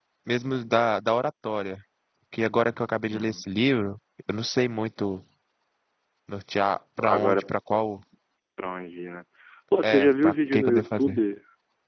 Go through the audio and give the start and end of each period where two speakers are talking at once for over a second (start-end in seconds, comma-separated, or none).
9.8-11.2